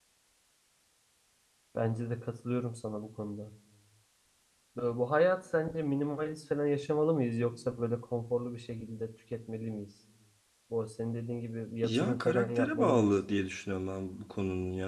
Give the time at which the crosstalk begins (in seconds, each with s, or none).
11.8 s